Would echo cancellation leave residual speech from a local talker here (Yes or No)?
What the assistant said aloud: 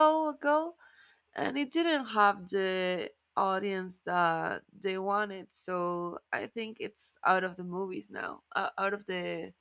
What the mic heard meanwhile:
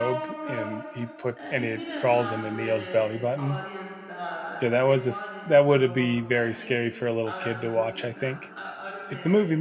Yes